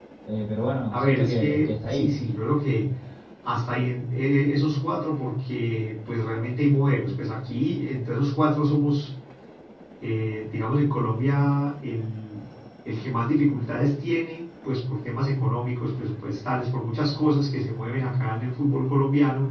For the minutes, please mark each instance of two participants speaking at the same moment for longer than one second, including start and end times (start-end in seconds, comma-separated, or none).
0.9-2.1